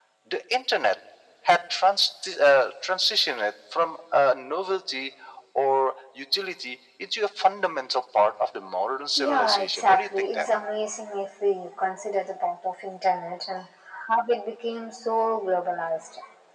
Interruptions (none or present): present